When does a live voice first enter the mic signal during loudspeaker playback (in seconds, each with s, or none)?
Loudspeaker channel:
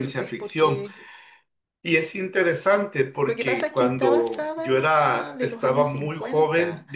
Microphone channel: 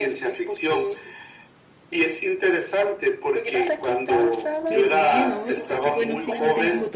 4.6 s